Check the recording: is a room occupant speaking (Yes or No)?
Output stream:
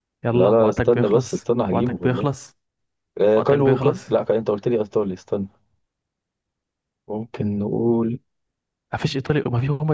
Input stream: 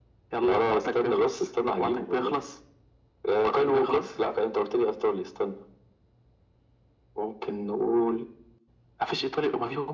No